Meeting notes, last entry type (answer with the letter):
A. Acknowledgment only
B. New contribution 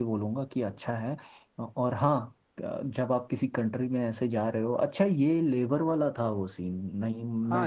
B